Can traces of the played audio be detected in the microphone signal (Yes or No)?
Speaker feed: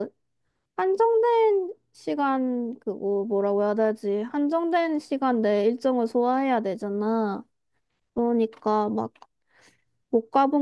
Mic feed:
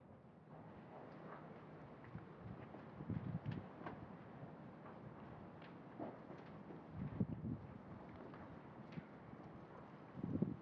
No